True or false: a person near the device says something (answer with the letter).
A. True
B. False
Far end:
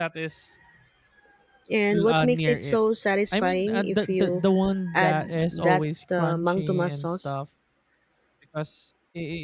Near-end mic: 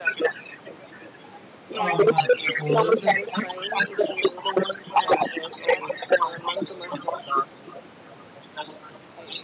A